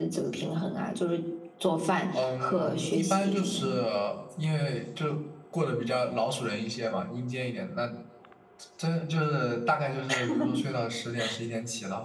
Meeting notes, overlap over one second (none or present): present